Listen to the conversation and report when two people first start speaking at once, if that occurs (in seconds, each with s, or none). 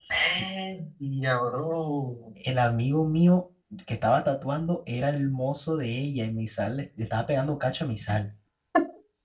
none